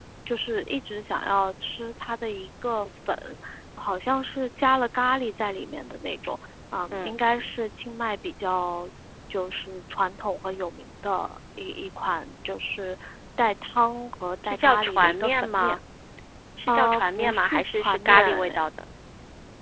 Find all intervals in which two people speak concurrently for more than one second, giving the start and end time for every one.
14.4-15.8, 16.7-18.6

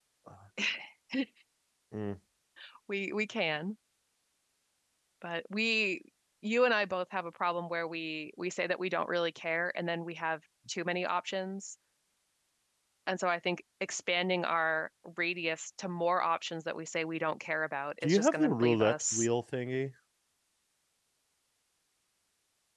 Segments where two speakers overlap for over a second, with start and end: 18.0-19.3

